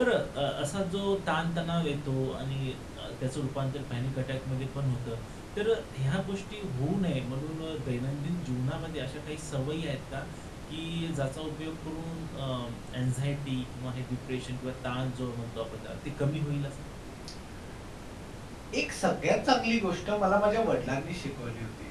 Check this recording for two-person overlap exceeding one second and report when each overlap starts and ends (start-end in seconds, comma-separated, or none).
none